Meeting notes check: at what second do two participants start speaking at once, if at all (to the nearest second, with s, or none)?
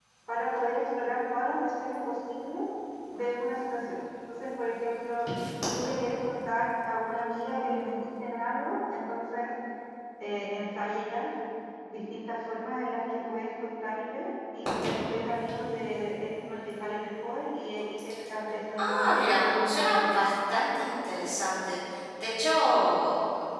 19 s